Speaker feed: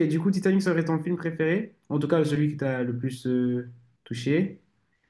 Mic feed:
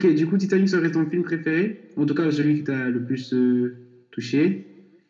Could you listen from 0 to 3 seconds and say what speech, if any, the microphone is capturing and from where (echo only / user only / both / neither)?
echo only